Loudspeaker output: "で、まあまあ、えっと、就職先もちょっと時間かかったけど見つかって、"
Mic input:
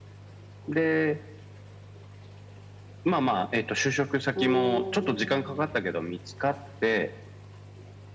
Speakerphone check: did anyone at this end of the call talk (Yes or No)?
Yes